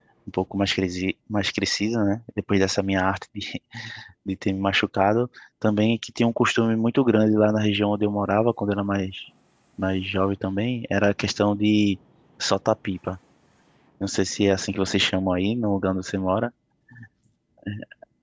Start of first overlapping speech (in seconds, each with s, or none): none